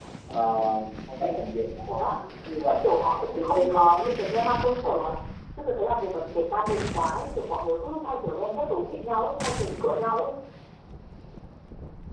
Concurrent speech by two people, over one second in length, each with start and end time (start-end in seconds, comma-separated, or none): 2.6-3.9